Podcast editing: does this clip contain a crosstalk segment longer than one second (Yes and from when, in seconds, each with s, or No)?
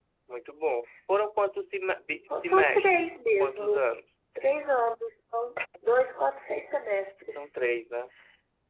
Yes, from 2.3 s